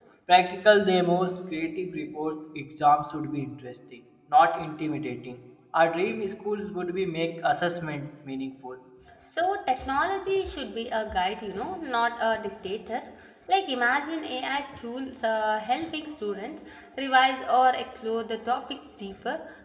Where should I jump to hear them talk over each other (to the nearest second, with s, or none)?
none